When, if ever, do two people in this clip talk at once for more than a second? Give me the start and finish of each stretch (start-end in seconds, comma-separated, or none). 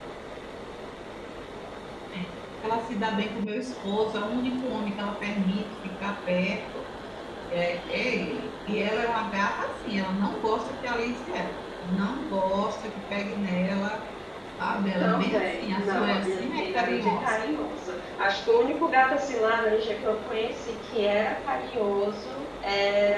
15.0-17.4